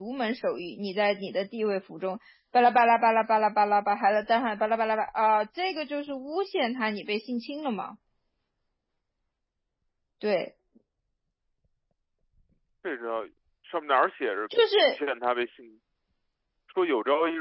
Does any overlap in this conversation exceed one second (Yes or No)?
No